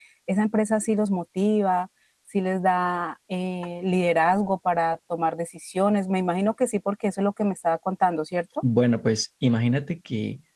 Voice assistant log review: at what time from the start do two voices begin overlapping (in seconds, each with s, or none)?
none